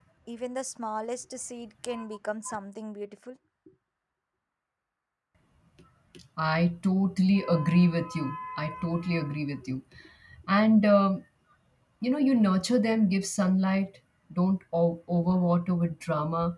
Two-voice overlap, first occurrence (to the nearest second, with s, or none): none